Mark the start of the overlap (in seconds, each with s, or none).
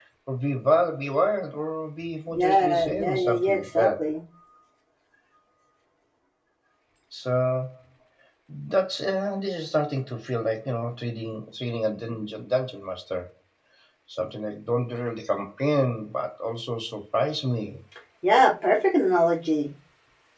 2.3 s